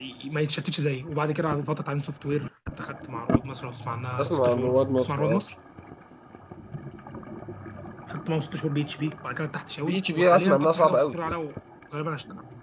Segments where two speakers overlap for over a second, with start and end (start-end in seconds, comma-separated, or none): 4.2-5.4, 9.8-11.1